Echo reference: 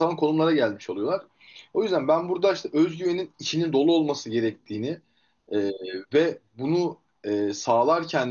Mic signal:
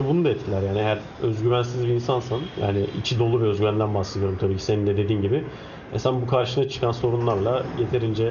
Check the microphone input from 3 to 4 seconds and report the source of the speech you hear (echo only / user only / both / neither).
user only